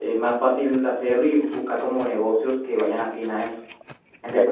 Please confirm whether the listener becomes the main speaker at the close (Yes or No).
Yes